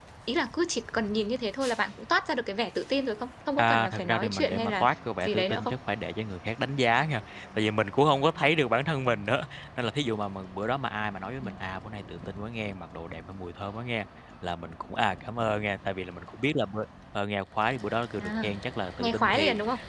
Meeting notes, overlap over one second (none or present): present